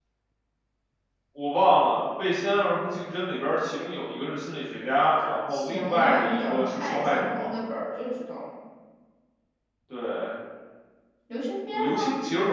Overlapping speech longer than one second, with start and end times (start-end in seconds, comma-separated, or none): 5.5-7.3